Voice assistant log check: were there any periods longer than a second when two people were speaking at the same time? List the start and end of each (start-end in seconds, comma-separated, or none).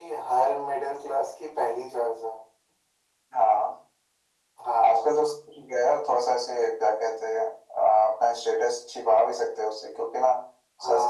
none